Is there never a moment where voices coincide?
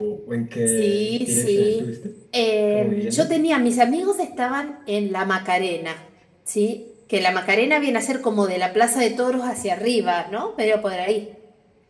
No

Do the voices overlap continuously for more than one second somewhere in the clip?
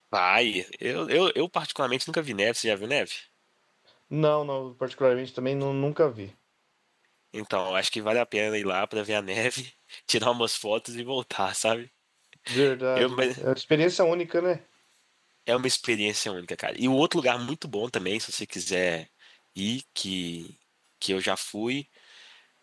No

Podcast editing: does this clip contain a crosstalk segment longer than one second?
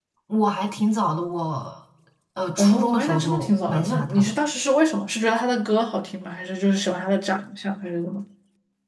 Yes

